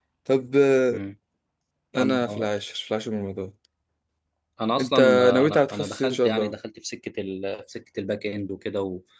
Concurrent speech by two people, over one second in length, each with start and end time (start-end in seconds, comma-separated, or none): 4.8-6.5